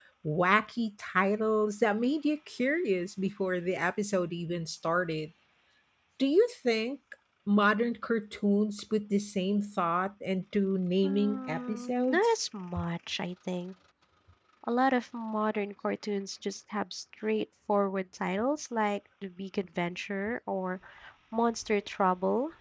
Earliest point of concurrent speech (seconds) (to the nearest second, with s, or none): 11 s